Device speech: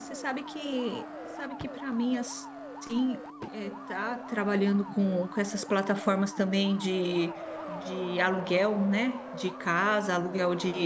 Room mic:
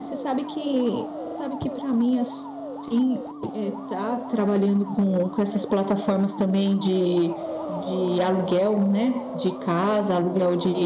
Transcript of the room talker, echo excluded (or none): none